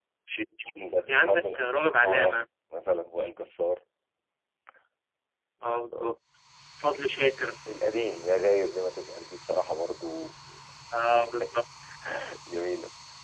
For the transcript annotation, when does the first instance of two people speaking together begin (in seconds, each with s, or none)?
1.1 s